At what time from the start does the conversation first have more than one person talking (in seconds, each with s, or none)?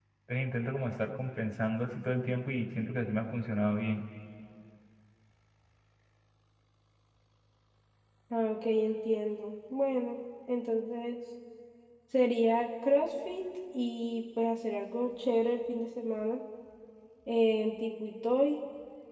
none